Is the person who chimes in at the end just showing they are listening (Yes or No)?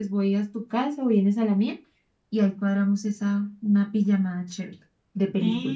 No